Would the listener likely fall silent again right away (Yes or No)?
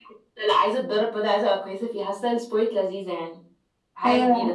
No